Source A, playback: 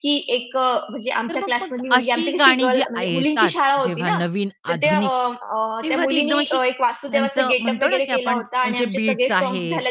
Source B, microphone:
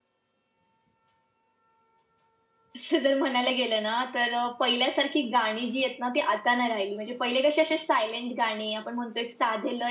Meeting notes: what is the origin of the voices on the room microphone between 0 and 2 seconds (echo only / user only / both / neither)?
neither